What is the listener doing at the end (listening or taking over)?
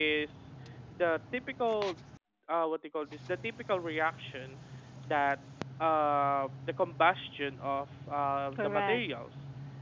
listening